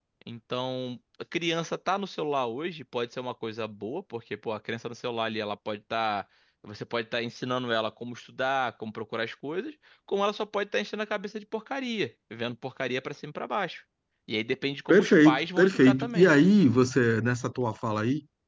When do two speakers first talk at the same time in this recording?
14.9 s

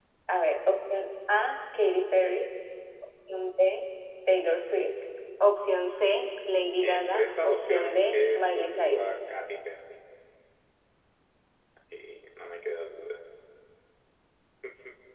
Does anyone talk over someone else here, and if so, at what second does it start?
6.8 s

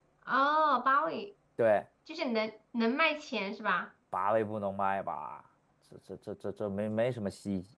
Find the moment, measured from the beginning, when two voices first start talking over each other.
none

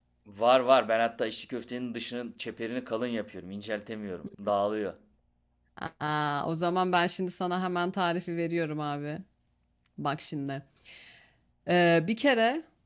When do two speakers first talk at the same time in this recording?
none

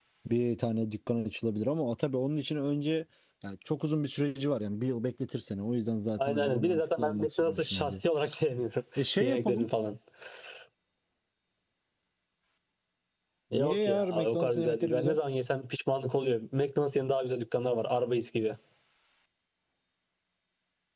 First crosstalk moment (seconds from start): 6.3 s

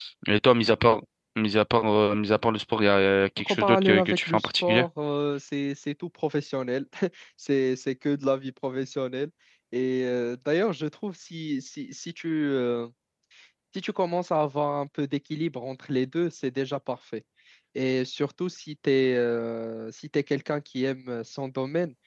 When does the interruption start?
3.4 s

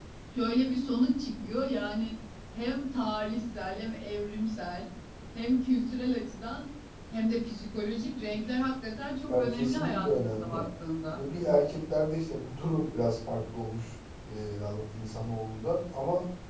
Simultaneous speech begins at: 9.3 s

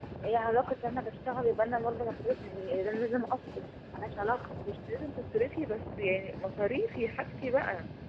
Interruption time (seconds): none

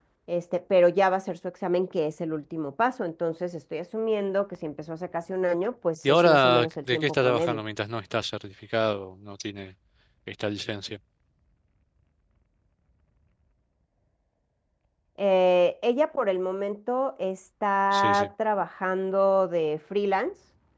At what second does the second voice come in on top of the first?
6.1 s

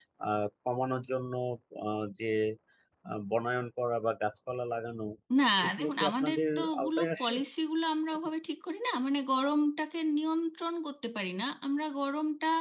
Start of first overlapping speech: 5.7 s

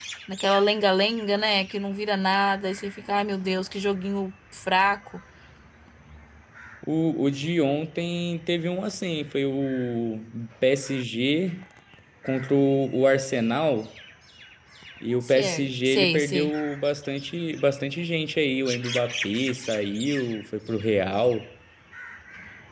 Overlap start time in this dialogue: 15.2 s

